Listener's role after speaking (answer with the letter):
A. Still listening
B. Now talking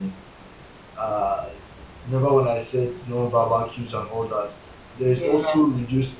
A